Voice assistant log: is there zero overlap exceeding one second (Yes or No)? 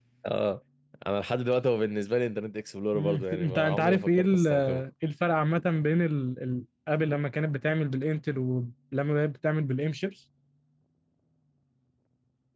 No